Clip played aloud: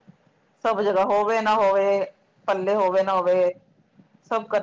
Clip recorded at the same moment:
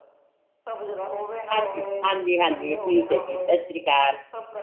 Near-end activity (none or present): present